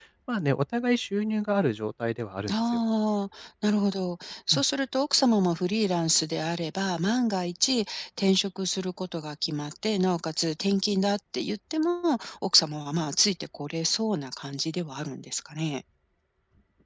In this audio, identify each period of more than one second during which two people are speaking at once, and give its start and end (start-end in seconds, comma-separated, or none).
none